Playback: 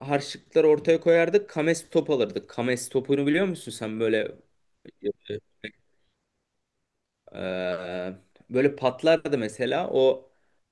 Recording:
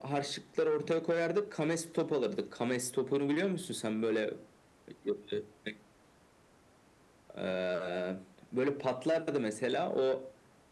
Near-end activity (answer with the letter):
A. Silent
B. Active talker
A